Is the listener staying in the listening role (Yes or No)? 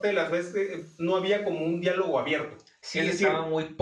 No